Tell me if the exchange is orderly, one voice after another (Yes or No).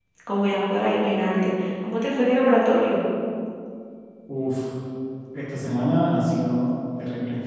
Yes